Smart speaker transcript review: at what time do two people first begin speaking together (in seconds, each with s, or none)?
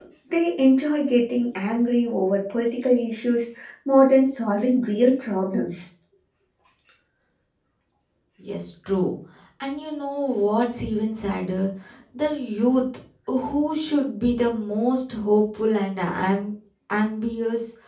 none